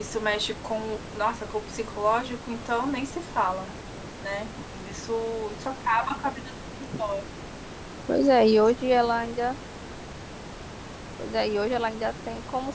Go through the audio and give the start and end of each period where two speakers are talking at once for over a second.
none

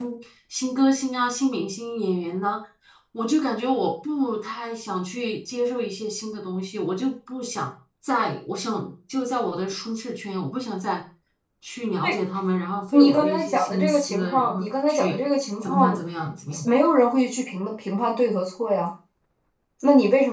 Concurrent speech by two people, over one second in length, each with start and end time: 12.9-15.2

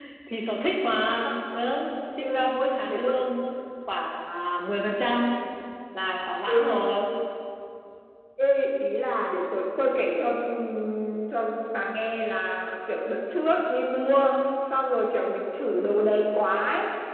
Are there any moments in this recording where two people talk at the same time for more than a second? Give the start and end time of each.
none

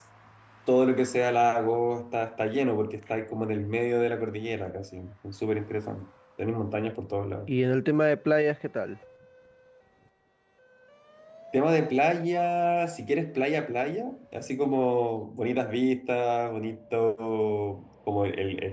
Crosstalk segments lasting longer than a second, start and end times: none

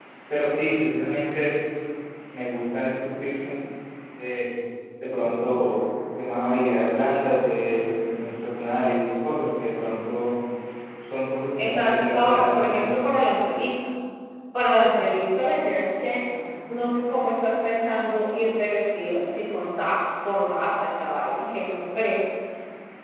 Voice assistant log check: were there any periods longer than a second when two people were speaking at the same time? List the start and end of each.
11.6-13.0

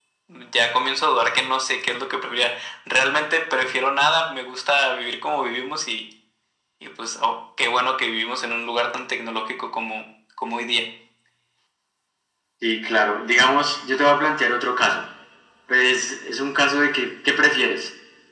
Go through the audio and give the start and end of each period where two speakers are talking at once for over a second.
none

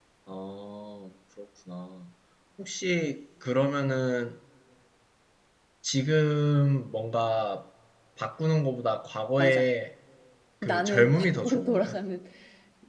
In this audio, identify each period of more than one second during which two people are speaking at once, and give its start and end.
10.6-11.9

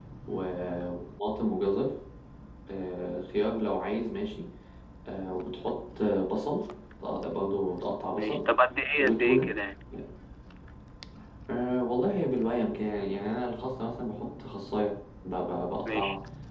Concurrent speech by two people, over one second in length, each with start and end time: none

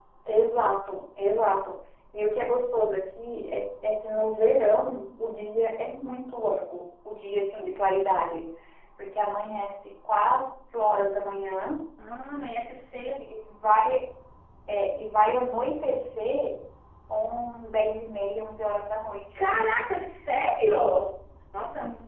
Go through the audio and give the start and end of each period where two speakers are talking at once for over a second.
none

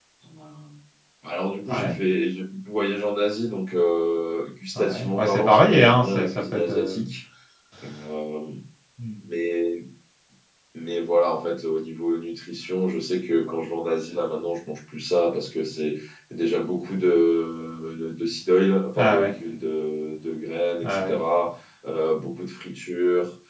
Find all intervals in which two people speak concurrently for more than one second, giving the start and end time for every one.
4.8-7.0

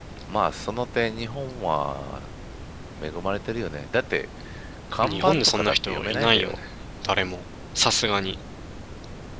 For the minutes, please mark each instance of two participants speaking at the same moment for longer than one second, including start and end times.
5.0-6.6

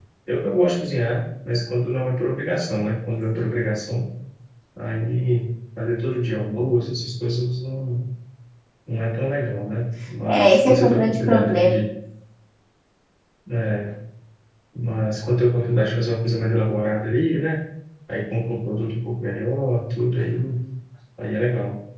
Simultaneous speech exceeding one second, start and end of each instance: 10.3-11.8

